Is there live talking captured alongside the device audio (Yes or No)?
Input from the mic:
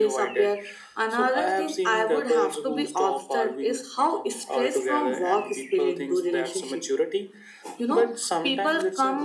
No